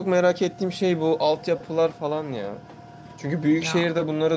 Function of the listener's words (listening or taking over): listening